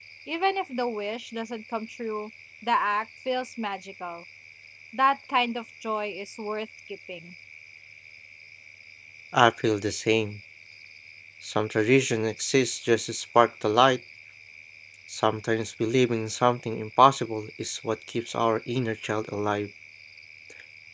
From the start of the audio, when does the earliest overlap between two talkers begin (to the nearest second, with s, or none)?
none